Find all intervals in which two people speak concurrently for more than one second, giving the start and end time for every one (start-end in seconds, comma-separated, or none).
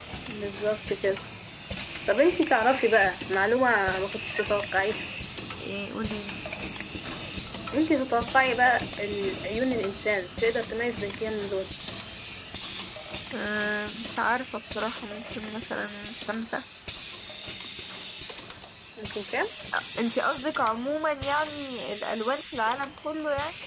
none